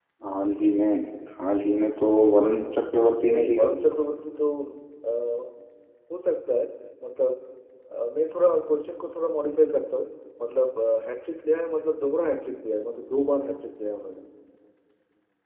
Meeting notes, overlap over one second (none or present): none